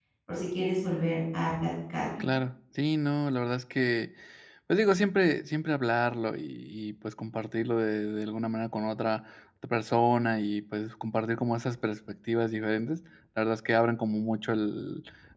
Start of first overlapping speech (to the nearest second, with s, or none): none